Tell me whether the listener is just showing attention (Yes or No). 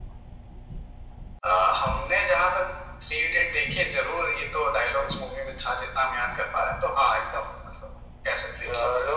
No